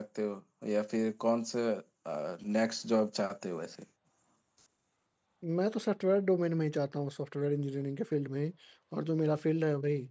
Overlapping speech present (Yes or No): No